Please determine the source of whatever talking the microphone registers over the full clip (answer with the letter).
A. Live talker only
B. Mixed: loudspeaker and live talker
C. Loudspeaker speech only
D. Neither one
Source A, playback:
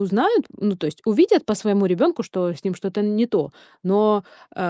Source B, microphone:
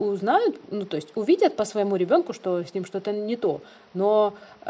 C